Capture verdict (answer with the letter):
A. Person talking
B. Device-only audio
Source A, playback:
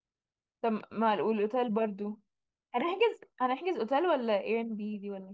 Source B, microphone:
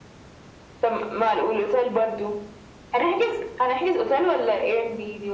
B